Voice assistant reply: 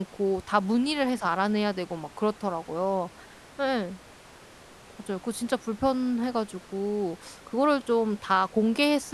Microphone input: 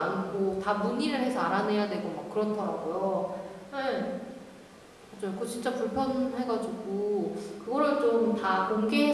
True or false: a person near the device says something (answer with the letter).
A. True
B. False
B